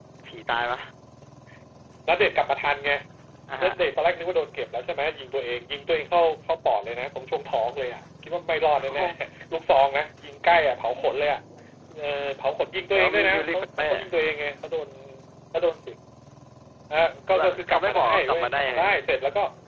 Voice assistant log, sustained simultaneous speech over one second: present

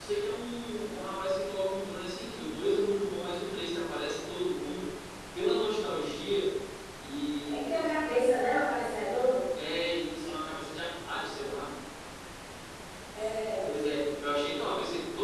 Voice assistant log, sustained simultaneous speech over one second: none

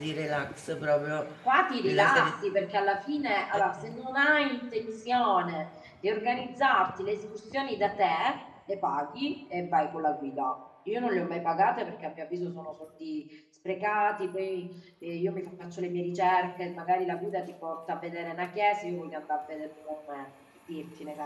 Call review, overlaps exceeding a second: none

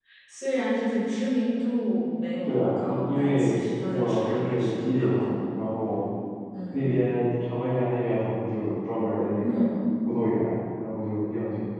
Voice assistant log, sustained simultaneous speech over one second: present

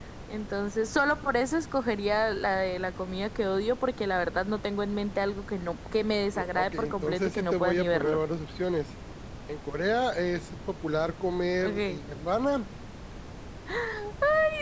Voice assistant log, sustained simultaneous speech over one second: present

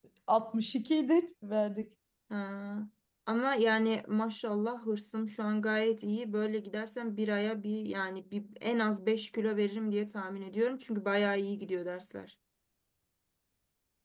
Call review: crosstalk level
none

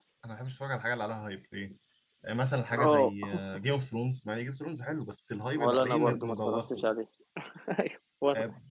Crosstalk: present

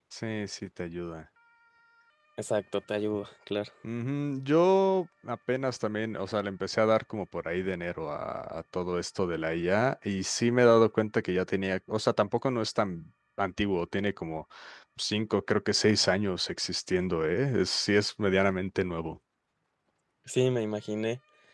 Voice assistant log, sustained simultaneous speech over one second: none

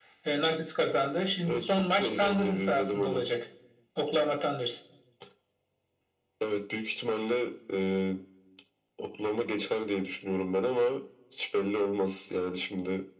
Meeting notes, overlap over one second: present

